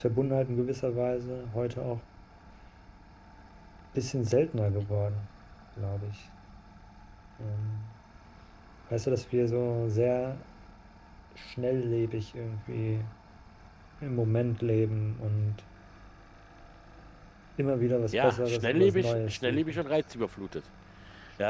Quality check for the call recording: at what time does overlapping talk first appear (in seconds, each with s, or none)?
18.1 s